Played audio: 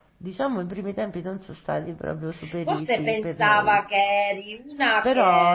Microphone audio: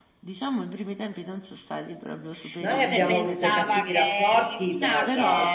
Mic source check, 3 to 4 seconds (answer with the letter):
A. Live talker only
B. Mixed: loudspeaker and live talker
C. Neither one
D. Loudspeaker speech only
B